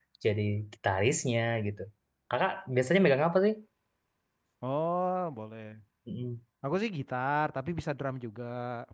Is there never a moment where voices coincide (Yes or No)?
Yes